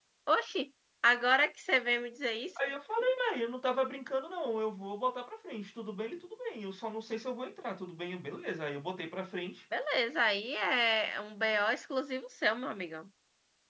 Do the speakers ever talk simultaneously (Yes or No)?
No